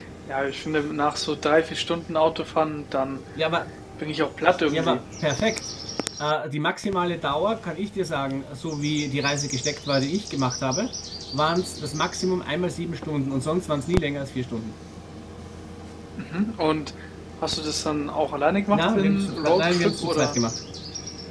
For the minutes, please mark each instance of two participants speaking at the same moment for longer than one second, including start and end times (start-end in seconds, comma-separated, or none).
18.7-20.4